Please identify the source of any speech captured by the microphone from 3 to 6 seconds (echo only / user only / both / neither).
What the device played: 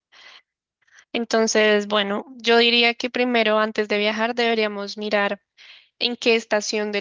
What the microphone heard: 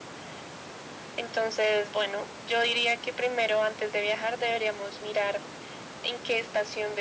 echo only